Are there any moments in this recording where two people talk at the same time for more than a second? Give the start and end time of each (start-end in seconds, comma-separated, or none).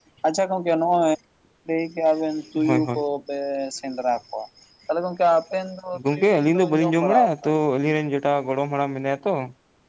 6.1-7.5